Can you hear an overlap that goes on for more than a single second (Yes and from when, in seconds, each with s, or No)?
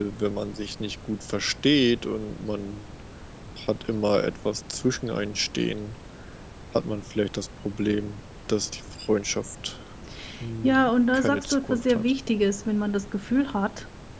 Yes, from 10.6 s